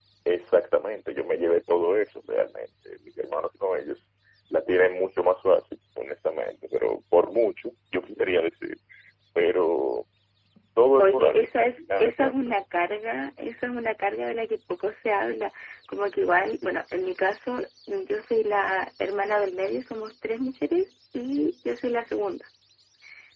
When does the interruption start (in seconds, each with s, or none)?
11.0 s